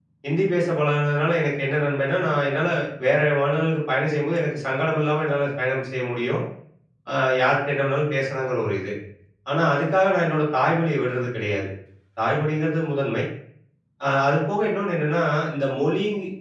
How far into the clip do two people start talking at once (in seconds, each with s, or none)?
none